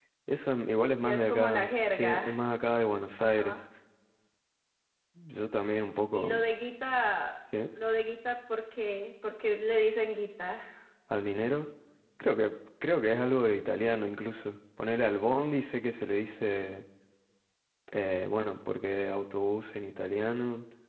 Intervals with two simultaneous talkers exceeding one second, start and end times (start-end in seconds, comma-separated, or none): 1.0-2.3